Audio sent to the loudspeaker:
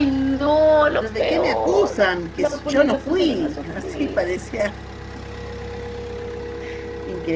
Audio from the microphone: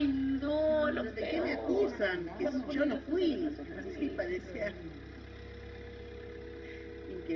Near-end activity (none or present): present